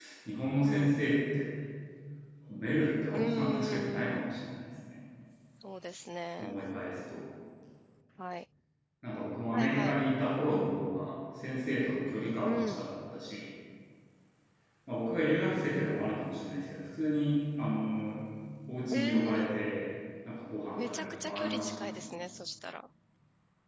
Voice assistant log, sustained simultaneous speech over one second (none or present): present